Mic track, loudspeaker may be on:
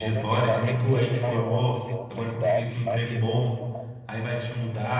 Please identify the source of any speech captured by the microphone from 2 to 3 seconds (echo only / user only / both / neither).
both